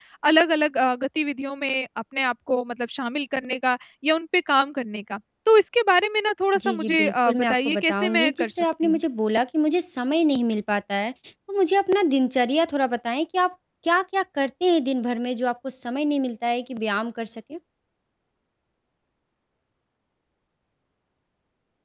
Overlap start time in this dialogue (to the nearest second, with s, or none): 7 s